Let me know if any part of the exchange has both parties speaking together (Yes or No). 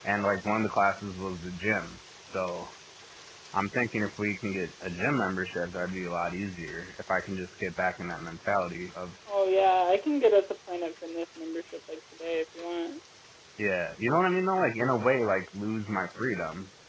No